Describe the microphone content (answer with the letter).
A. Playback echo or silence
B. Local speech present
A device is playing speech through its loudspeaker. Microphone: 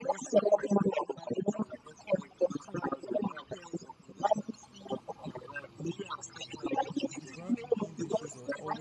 B